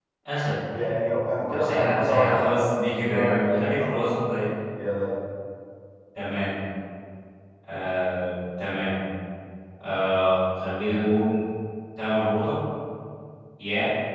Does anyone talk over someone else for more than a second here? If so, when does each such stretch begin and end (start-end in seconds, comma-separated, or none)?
1.5-3.9